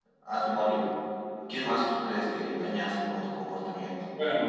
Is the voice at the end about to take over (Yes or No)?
Yes